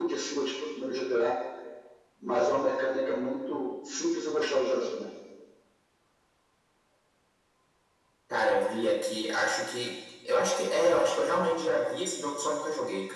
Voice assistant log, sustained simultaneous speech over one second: none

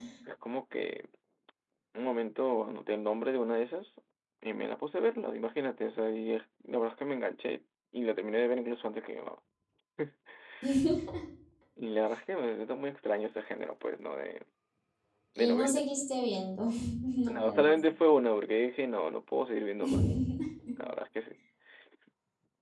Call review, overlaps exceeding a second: none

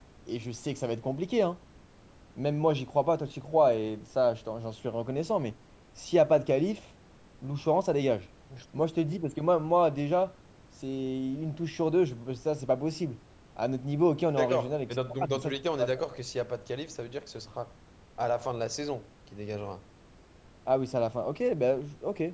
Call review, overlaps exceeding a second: present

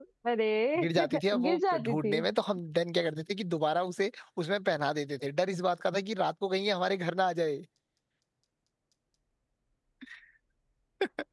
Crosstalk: present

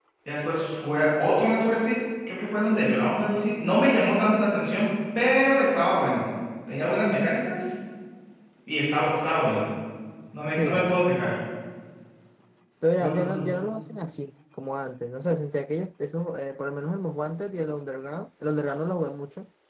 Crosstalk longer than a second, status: none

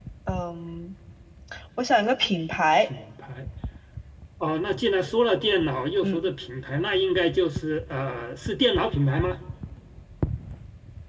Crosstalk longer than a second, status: none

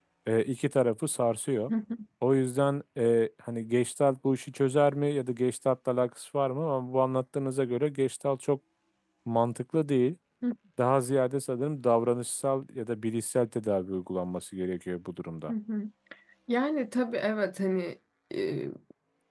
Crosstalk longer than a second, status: none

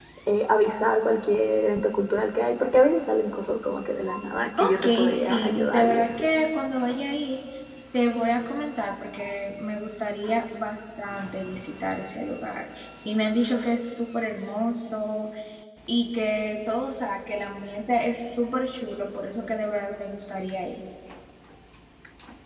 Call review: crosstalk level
present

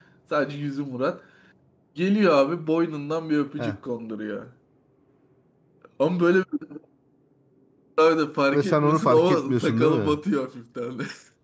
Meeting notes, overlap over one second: present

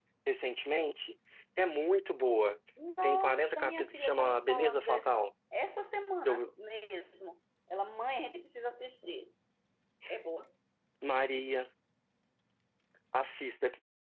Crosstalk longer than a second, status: present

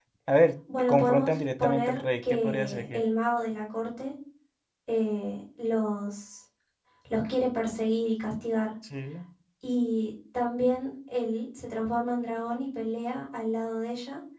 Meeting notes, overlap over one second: present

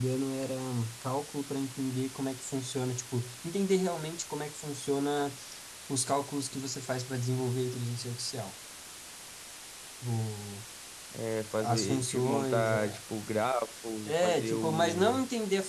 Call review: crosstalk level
present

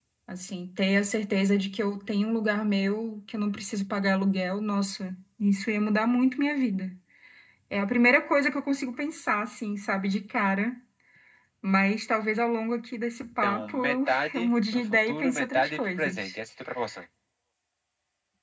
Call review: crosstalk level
present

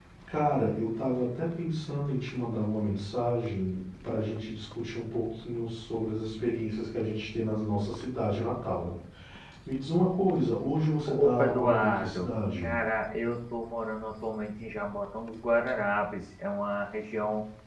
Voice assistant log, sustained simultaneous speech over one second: present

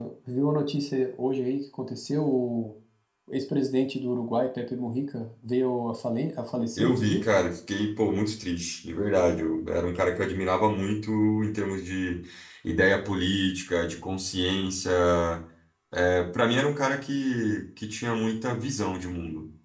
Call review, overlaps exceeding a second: none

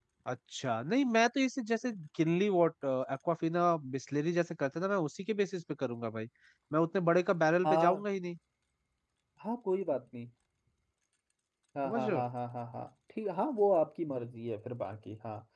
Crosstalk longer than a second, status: none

